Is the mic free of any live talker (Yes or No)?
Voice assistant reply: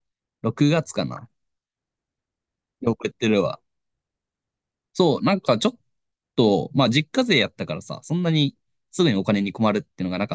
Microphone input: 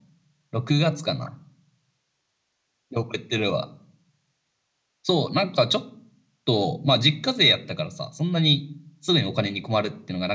Yes